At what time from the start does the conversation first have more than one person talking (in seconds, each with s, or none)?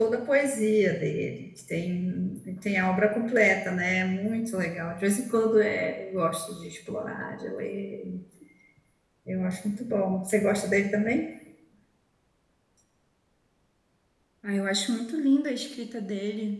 none